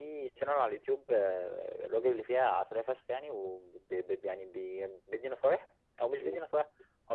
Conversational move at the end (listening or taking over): listening